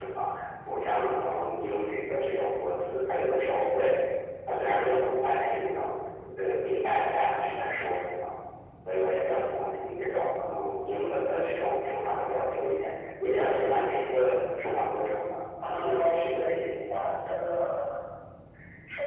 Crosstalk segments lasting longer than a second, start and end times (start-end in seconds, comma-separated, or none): 15.6-16.9